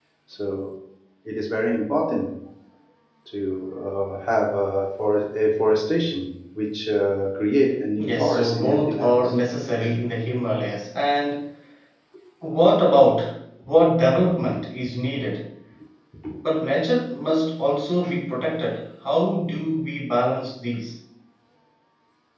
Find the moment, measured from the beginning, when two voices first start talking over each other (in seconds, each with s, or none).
8.0 s